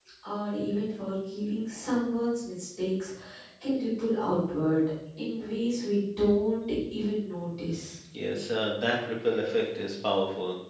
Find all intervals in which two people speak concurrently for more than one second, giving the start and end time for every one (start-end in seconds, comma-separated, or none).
none